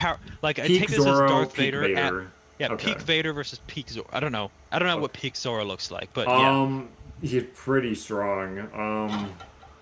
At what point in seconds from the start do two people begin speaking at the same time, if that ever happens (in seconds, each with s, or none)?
0.6 s